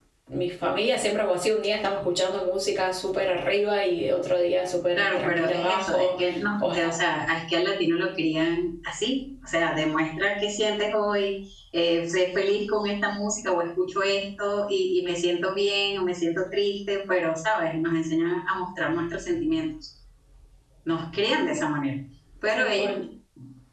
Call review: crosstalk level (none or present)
present